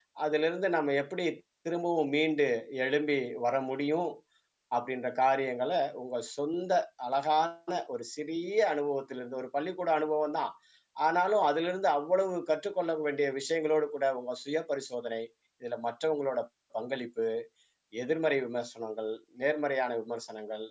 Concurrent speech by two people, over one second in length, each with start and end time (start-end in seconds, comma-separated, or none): none